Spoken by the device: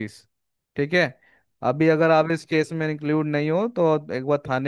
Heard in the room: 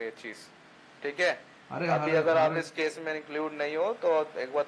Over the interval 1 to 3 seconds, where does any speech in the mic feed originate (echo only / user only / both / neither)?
both